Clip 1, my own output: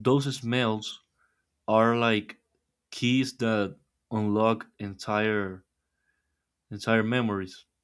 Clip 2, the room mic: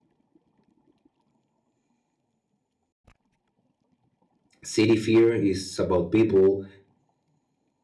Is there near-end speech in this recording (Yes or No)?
Yes